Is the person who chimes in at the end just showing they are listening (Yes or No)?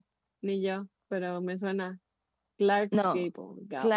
No